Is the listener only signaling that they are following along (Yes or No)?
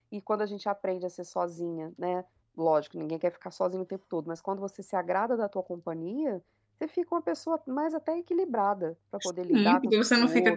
No